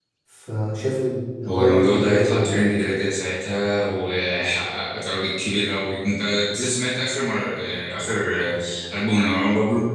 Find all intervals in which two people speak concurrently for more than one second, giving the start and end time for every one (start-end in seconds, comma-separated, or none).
1.5-2.7